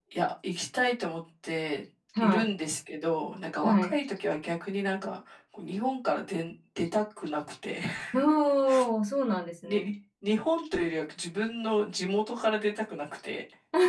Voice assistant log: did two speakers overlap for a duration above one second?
No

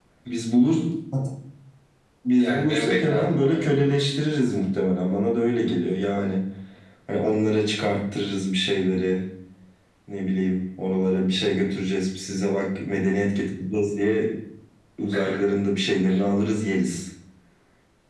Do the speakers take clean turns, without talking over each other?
No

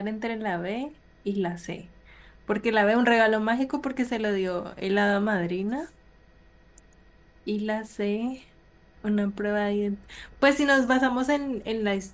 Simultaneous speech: No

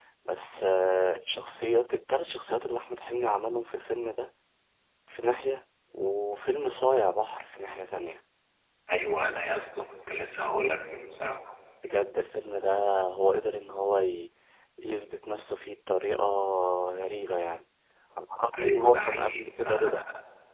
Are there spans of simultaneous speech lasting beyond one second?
Yes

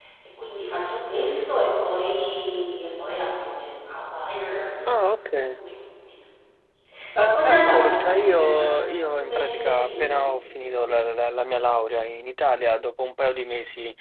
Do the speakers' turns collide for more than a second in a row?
Yes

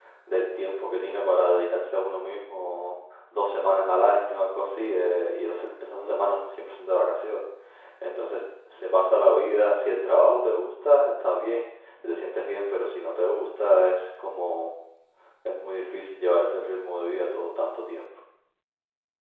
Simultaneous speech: No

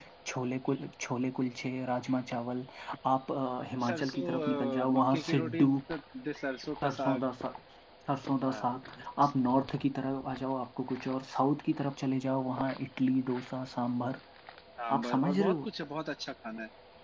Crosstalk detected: Yes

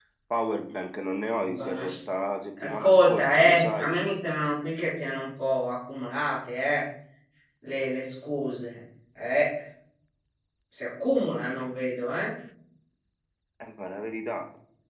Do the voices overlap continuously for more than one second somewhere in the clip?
Yes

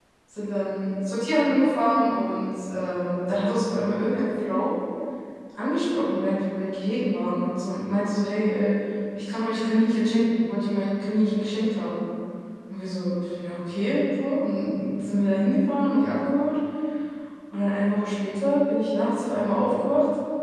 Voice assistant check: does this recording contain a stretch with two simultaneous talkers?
No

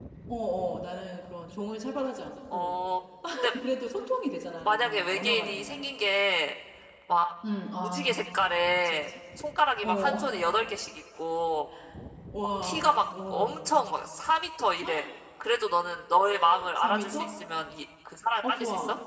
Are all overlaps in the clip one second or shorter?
No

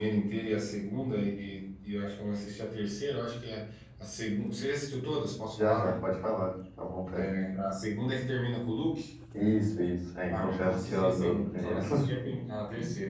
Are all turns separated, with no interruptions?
No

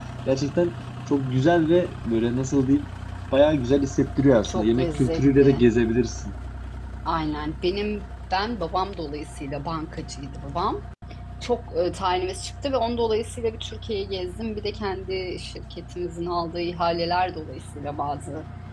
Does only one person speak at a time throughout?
No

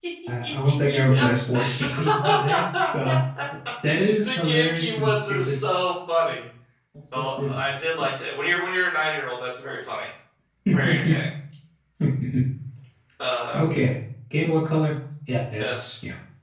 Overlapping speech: Yes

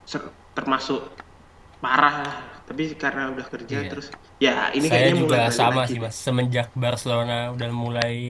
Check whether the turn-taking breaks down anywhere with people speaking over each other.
Yes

